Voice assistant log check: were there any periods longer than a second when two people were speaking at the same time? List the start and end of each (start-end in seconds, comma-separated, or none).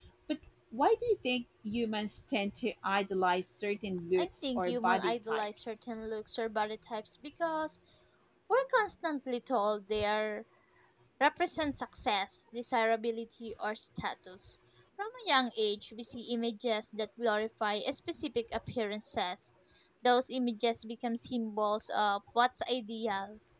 4.2-5.8